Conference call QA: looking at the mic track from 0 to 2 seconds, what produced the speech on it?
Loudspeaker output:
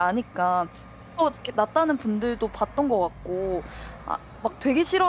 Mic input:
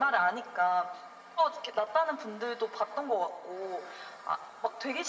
echo only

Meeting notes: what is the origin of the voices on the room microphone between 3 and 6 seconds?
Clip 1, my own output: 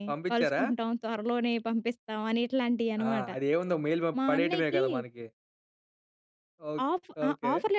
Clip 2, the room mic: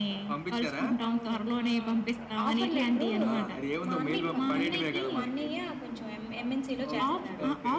both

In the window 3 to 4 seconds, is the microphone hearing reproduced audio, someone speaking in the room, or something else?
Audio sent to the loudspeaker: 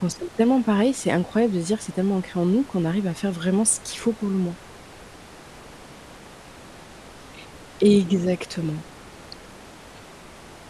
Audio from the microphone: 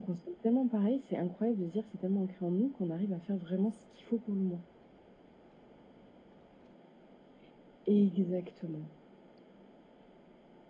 echo only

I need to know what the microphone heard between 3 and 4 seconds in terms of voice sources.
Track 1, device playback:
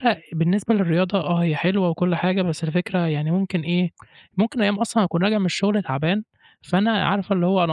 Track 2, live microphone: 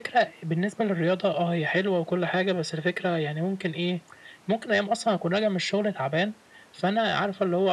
echo only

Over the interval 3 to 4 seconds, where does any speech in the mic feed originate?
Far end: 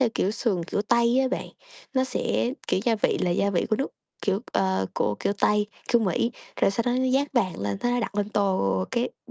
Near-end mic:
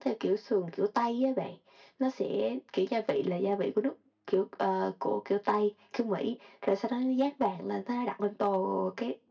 echo only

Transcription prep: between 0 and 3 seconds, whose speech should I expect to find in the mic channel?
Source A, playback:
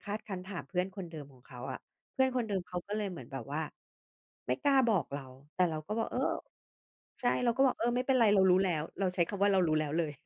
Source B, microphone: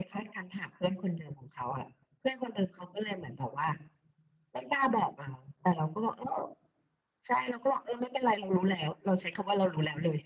echo only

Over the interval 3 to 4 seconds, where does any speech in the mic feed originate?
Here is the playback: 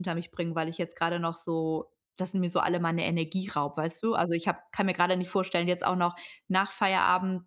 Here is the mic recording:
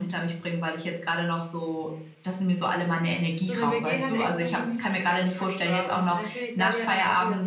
both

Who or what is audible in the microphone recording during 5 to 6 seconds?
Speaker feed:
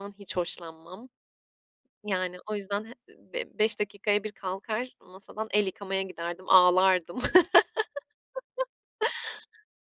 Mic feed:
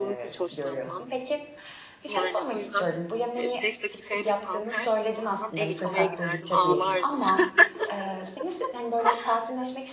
both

